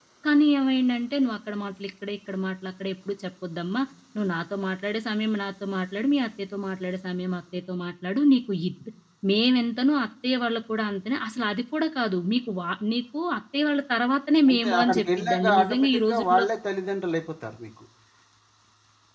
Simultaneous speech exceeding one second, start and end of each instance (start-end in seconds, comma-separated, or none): 14.5-16.4